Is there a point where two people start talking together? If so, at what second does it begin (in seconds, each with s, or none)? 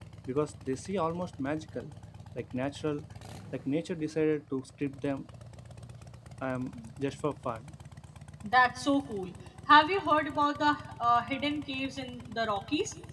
none